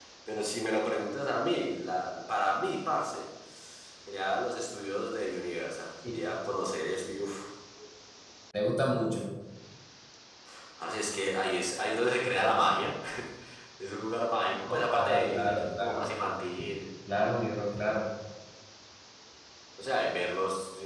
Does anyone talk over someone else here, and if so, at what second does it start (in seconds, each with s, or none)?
14.7 s